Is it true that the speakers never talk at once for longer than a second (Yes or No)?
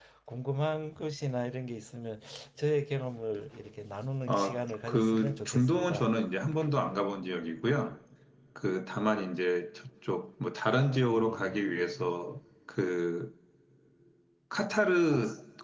No